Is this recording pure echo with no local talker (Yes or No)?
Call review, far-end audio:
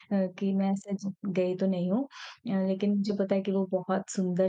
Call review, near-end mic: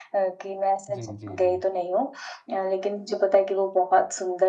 No